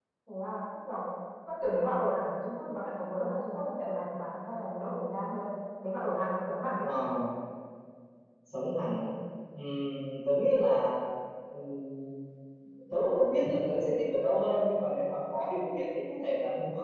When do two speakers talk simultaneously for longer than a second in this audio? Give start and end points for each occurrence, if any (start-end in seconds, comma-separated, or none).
none